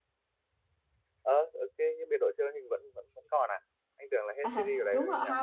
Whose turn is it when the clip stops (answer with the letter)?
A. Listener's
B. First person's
A